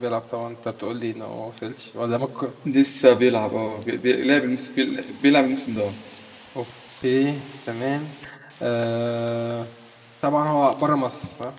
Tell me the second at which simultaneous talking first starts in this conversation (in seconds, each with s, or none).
none